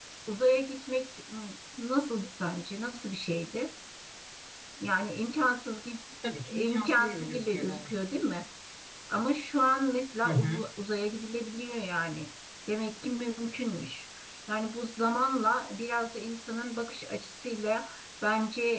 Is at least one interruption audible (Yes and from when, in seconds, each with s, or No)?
Yes, from 6.5 s